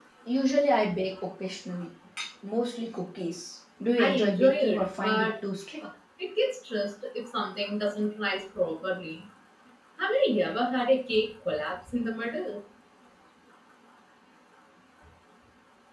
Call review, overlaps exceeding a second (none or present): present